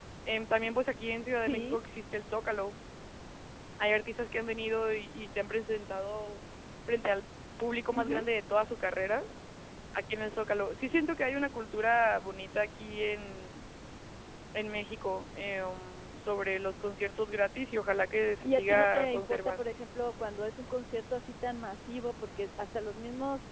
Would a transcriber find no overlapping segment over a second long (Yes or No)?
No